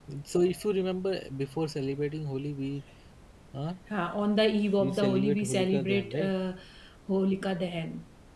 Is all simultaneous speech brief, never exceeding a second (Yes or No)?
No